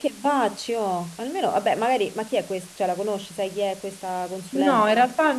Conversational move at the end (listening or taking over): taking over